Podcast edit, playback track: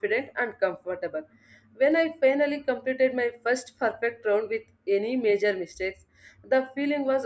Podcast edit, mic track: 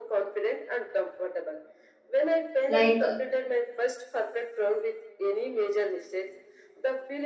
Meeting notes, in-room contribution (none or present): present